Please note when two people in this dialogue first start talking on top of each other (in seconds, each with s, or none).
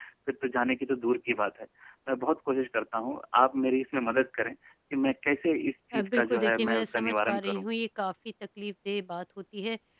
5.9 s